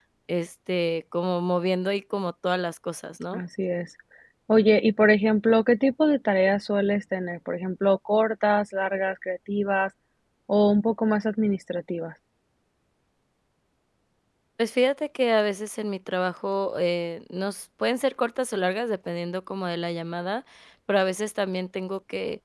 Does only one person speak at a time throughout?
Yes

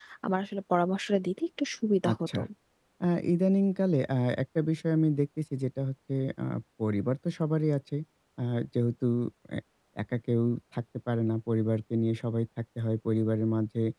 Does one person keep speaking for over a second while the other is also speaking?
No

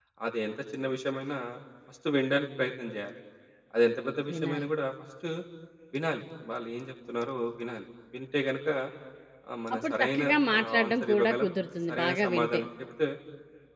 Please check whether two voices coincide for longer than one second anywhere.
Yes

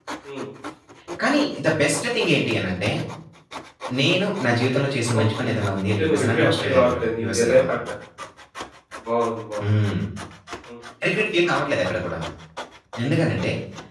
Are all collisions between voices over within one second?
No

